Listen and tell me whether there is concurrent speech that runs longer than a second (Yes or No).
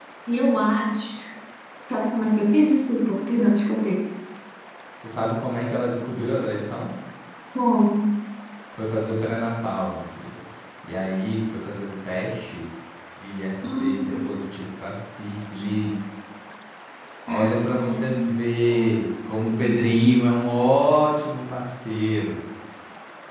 Yes